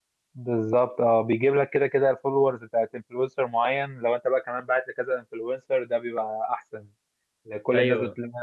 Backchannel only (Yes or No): Yes